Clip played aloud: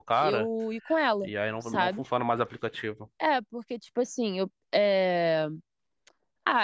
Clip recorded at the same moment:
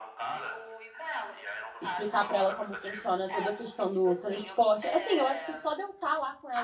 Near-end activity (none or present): present